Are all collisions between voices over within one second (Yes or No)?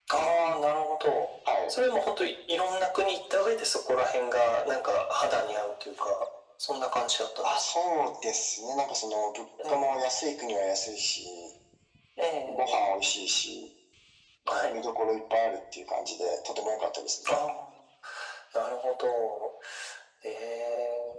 Yes